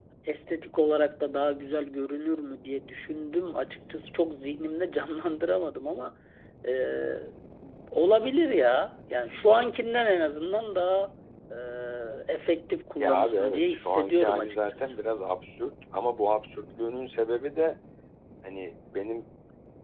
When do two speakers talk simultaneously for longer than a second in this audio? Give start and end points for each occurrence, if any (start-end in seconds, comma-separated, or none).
13.0-14.9